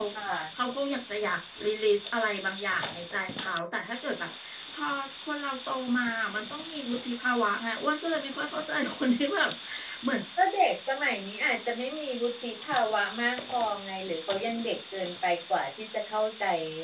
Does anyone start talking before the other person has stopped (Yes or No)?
No